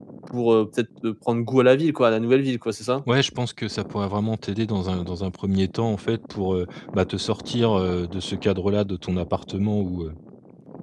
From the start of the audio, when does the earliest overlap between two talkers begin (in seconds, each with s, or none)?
none